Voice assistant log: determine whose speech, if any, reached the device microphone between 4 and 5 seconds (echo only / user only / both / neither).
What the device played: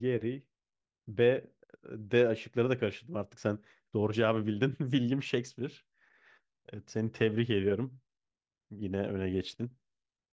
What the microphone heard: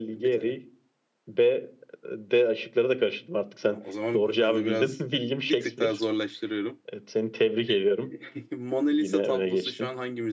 both